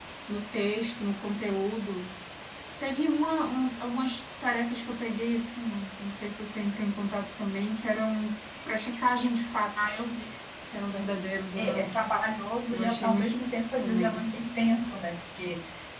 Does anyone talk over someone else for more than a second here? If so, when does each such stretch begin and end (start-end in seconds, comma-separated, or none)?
12.7-14.2